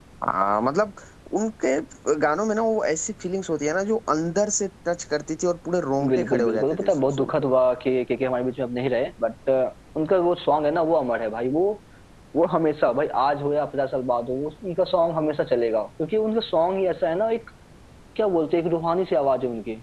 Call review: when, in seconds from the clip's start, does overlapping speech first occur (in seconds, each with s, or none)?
6.0 s